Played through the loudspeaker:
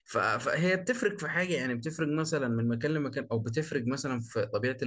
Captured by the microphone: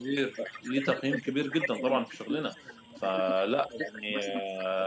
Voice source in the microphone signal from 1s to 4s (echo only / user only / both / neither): both